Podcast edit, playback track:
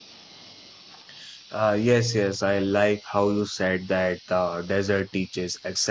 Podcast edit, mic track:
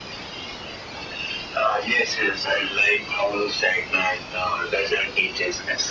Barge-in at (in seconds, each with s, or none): none